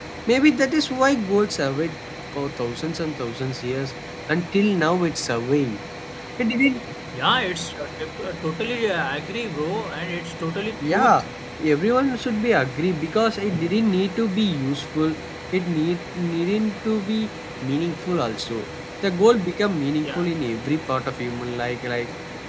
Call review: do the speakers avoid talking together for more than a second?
Yes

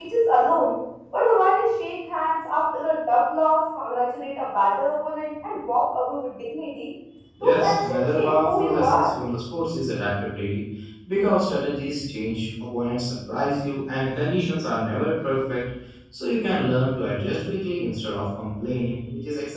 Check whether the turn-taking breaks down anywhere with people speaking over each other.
Yes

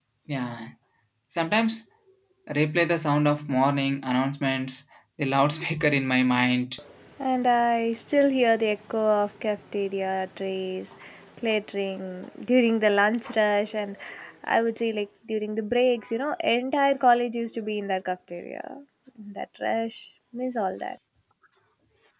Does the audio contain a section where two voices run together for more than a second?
No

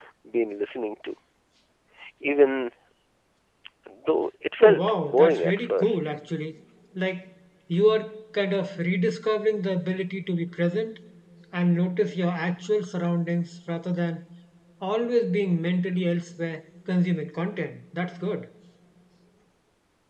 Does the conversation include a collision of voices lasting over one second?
Yes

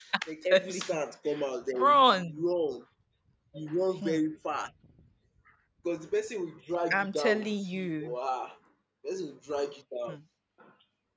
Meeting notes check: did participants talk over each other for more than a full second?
Yes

